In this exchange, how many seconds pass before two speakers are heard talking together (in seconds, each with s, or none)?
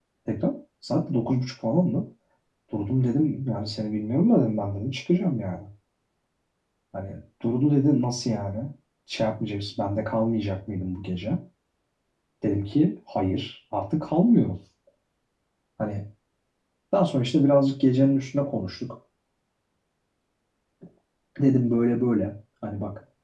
none